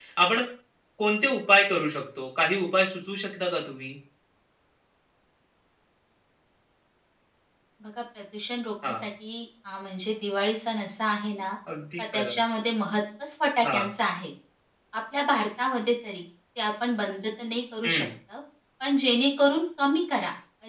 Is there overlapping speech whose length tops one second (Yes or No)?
No